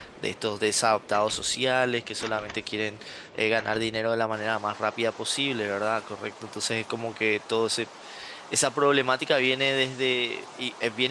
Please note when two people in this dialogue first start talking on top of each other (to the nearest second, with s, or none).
none